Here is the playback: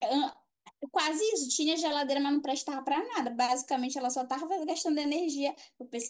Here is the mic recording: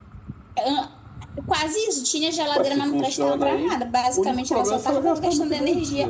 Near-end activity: present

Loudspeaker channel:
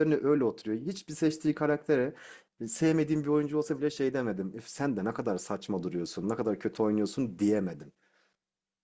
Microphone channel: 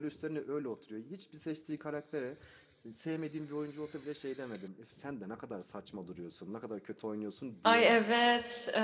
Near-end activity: present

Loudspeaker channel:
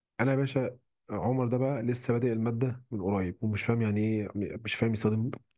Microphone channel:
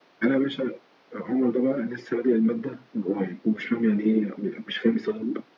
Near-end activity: none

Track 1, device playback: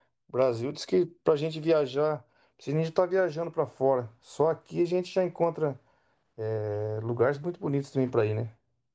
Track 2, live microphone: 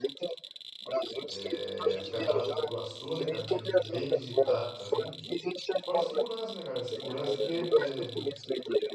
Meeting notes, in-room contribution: present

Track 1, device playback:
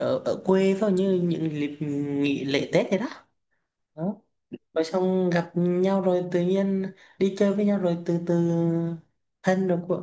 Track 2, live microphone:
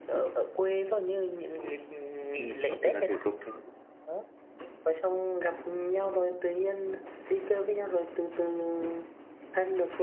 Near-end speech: present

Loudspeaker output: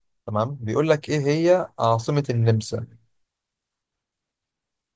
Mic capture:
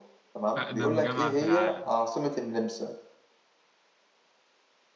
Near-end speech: present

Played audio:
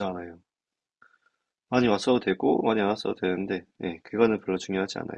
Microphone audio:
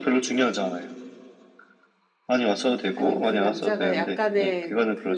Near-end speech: present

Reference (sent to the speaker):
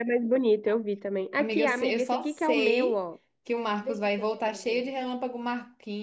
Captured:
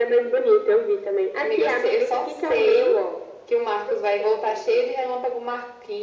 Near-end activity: none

